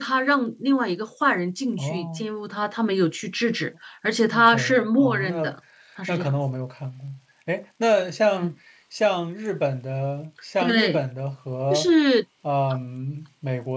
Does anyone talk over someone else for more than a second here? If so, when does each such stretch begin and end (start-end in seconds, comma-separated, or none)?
4.3-5.5